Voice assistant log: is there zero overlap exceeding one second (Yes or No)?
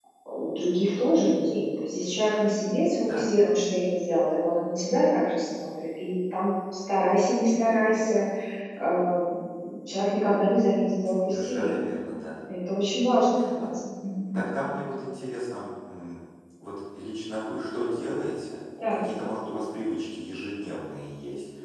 Yes